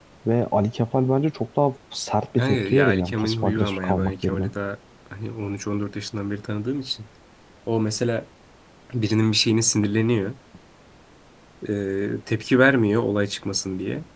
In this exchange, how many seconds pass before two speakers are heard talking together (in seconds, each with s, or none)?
2.4 s